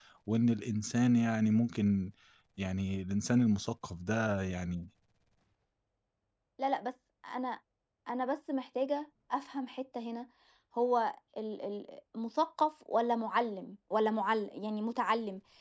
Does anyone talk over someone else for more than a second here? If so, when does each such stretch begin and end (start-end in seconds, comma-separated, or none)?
none